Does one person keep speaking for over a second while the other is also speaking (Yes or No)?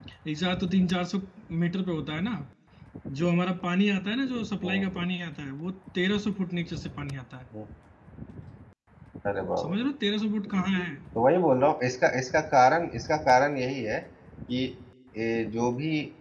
No